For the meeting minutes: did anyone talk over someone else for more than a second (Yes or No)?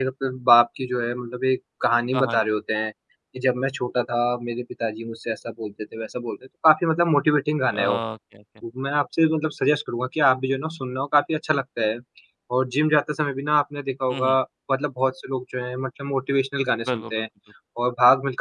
No